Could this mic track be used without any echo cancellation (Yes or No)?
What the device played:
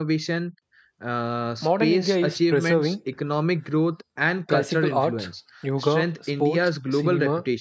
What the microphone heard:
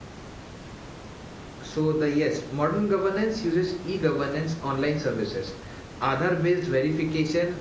Yes